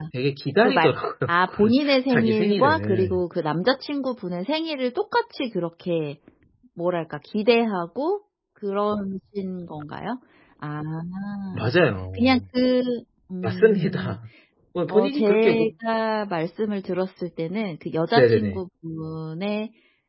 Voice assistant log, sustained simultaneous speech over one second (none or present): present